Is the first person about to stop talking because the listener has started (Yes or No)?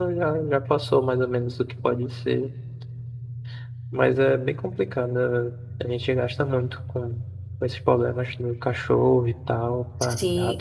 Yes